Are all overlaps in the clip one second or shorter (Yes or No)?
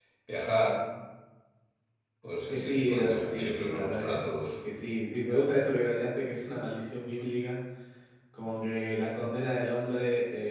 No